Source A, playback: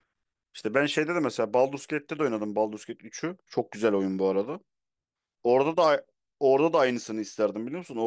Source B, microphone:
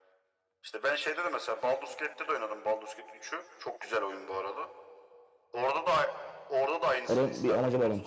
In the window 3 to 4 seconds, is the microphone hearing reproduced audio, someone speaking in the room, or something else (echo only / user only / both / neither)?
echo only